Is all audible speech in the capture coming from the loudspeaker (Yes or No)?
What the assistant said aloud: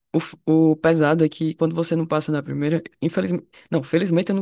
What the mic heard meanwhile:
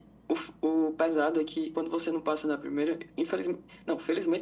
Yes